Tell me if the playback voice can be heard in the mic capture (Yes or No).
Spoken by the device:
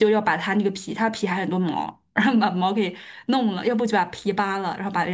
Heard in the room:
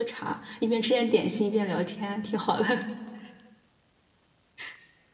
No